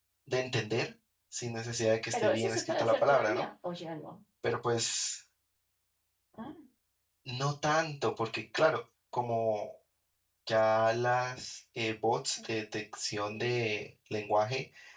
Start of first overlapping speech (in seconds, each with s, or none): 2.1 s